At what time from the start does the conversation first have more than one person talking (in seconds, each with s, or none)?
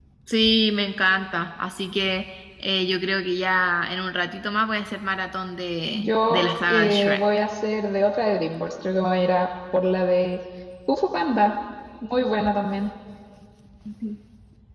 5.9 s